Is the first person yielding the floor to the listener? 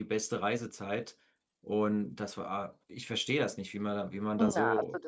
Yes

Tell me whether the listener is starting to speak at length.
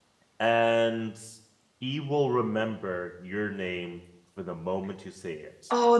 Yes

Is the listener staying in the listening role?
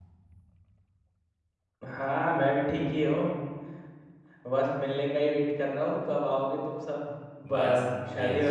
No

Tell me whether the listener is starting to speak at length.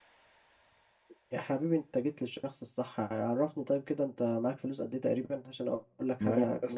Yes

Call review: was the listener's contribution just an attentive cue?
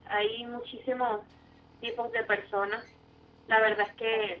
Yes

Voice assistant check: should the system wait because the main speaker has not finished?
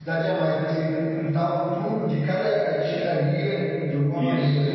No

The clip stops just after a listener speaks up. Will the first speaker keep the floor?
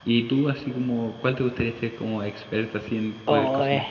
No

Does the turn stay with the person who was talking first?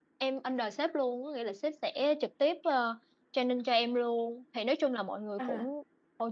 Yes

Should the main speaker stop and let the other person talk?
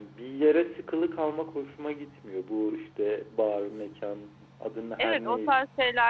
Yes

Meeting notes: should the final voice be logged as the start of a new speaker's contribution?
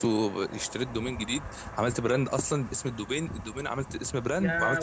Yes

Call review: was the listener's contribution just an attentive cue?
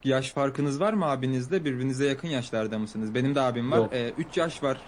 Yes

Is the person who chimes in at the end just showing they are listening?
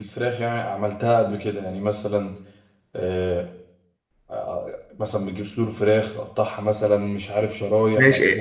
No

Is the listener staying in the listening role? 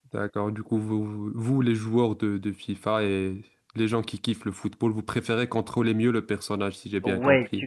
No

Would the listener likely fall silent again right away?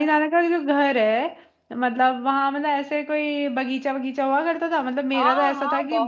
No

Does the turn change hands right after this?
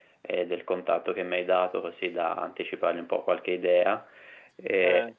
No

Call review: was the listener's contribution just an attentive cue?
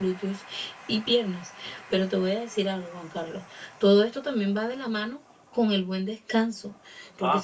Yes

